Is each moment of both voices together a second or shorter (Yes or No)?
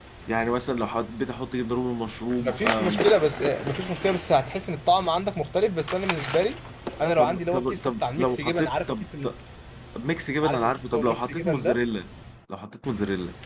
No